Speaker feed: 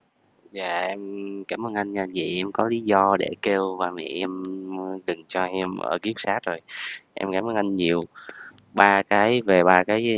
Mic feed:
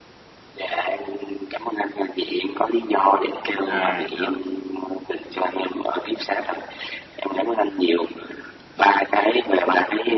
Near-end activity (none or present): present